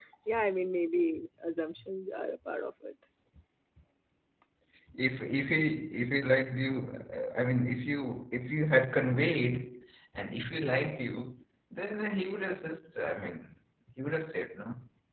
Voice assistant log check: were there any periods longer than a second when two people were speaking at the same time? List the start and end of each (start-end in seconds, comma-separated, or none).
none